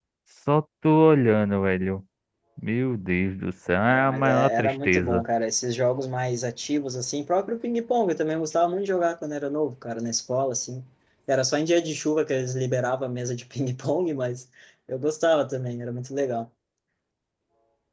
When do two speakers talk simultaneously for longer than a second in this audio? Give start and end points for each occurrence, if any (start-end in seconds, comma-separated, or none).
3.9-5.2